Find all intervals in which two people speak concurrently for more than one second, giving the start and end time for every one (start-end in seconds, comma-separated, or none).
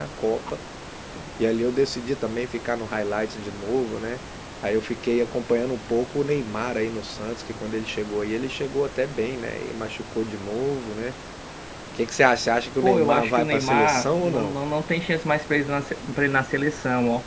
12.8-14.6